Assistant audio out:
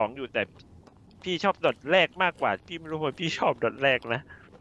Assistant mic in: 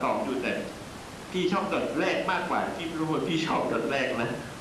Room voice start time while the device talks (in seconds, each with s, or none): none